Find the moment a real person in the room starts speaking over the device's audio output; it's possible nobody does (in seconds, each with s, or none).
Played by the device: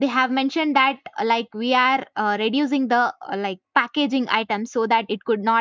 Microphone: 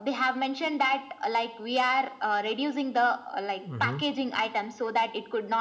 3.6 s